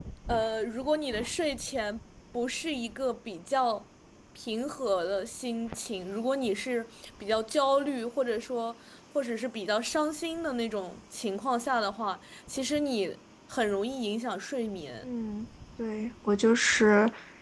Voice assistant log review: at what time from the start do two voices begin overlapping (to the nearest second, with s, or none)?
none